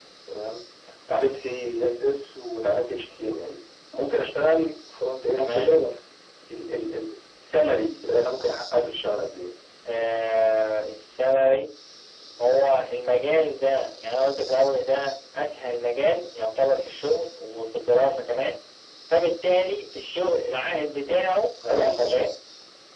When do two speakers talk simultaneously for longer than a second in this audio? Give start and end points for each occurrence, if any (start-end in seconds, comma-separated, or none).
none